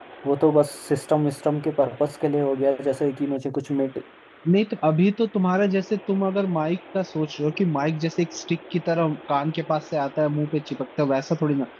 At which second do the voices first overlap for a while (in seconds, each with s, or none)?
none